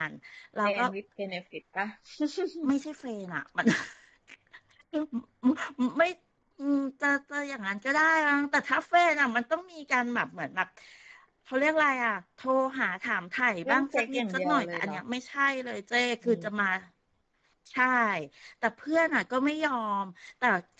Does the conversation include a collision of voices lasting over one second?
Yes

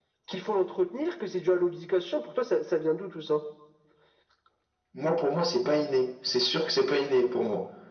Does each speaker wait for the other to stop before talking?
Yes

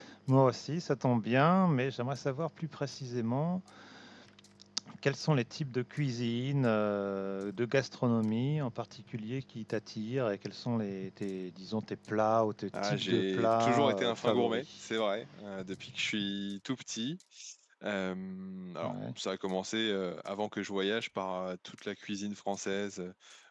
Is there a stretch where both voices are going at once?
Yes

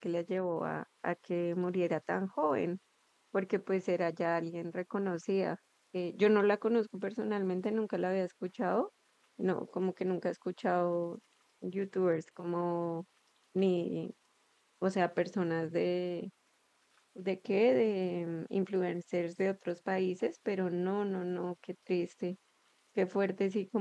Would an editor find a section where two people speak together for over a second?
No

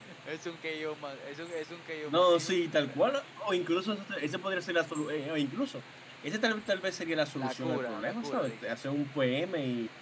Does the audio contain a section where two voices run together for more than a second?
Yes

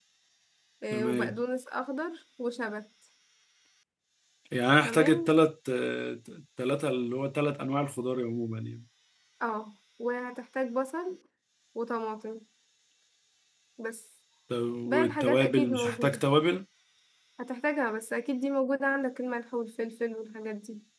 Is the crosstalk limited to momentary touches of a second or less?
No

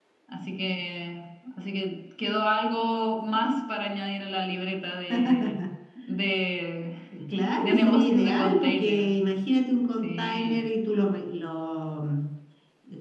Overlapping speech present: Yes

